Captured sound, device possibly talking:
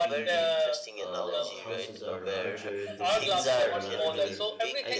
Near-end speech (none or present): present